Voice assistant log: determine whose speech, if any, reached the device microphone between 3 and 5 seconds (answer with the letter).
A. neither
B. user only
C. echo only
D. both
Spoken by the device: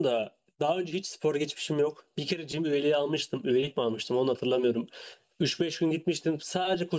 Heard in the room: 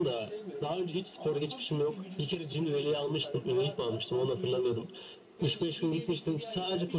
D